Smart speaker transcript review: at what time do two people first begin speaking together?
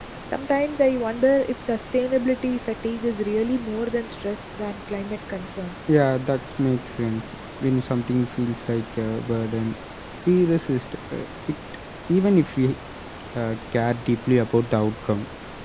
none

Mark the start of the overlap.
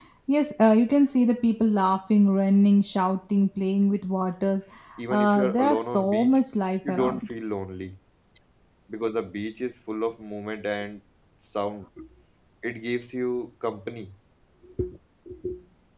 5.1 s

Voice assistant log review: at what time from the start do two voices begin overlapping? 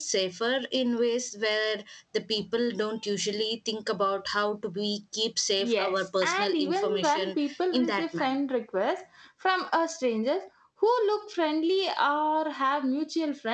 5.6 s

